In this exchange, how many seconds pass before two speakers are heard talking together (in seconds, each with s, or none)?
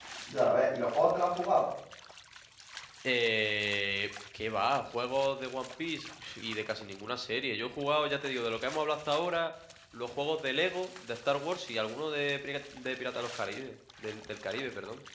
none